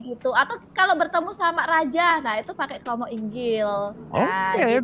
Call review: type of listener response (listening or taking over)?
taking over